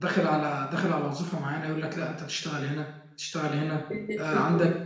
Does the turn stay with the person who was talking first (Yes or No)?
Yes